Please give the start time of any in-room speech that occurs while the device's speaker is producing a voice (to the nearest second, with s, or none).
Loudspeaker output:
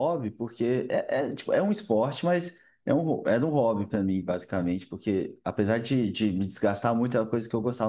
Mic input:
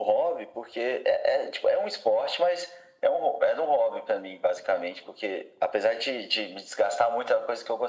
none